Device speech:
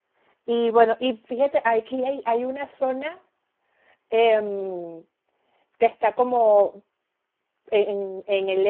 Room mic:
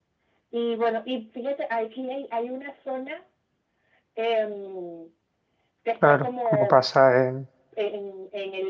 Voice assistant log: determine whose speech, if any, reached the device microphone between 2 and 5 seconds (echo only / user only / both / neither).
echo only